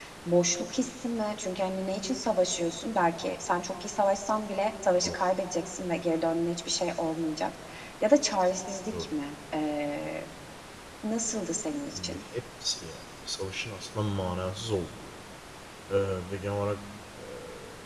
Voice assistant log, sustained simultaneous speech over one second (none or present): none